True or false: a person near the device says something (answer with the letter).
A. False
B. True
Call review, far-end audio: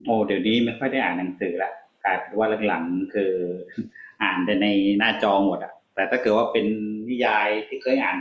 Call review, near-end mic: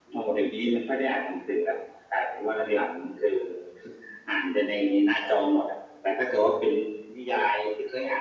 A